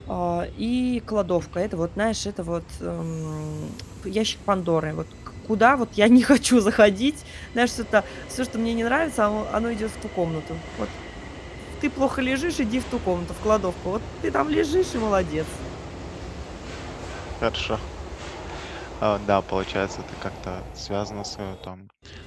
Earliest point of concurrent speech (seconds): none

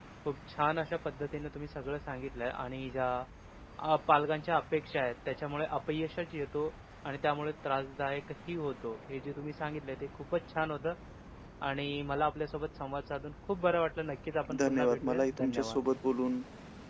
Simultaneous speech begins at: 14.5 s

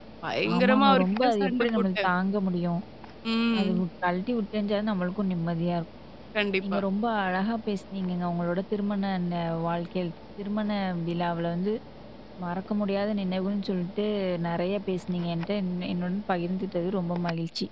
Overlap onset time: 0.6 s

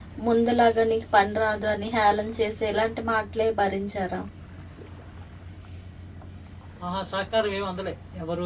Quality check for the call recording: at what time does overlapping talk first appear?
none

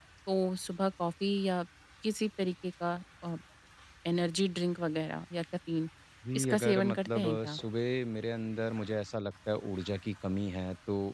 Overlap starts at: 6.4 s

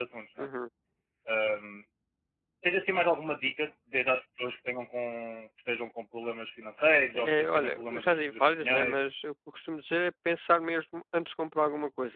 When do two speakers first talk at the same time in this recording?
7.1 s

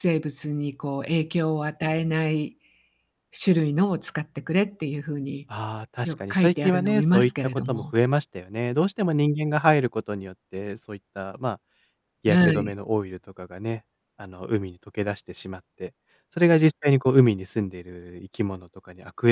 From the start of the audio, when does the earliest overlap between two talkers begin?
6.0 s

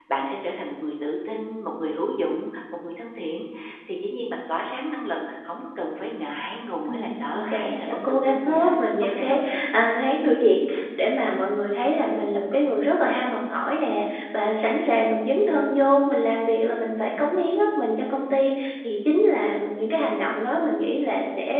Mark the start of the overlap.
6.8 s

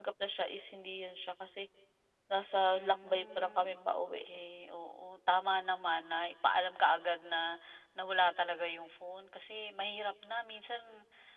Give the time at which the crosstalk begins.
2.7 s

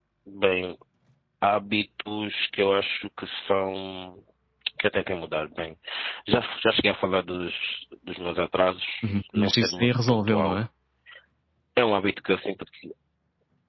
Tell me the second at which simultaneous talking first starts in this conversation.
9.3 s

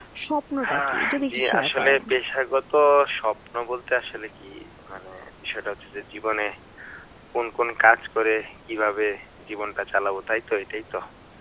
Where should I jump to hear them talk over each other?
0.7 s

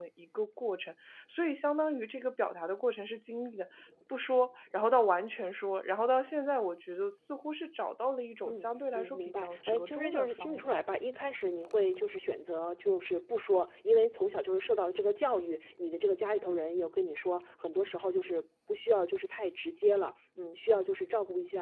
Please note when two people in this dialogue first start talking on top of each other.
8.4 s

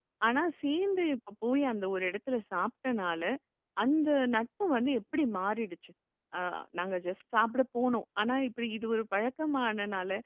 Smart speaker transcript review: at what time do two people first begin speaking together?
none

